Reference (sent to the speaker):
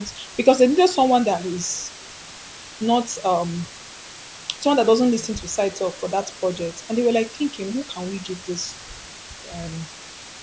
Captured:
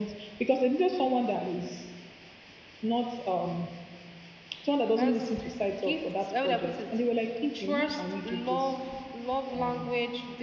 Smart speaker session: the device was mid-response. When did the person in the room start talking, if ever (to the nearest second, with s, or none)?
5 s